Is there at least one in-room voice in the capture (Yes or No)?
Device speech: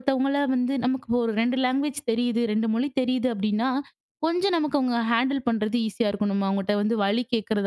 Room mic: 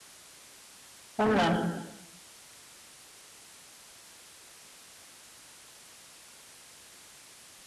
Yes